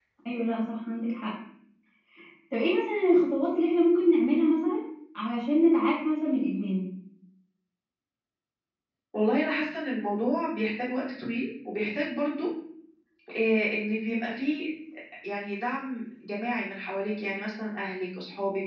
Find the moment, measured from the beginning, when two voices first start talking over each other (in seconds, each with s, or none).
none